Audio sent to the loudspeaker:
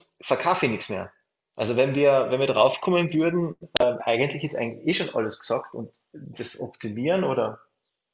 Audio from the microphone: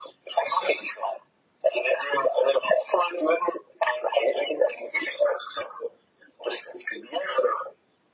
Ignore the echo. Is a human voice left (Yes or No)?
No